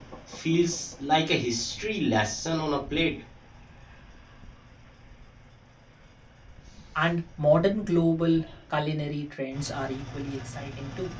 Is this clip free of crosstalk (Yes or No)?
Yes